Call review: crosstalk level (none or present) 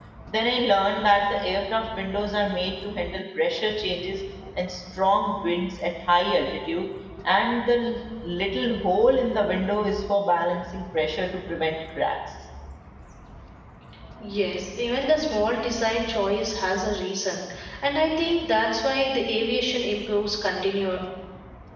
none